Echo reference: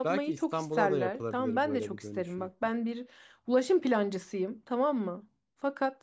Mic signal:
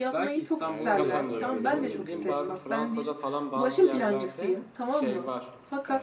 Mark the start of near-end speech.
0.6 s

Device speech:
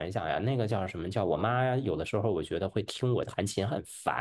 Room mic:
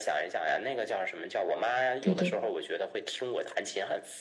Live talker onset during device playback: 2.0 s

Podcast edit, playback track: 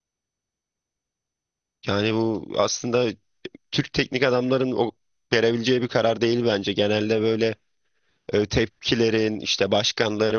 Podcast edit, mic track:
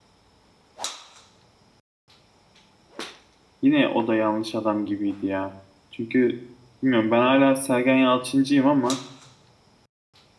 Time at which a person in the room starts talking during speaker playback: 3.6 s

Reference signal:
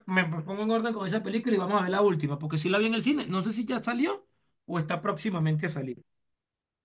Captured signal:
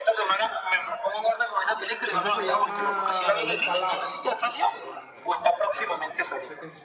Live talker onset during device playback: 2.1 s

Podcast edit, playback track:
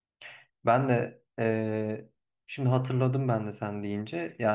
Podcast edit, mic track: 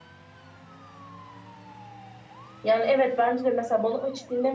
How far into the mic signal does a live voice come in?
2.6 s

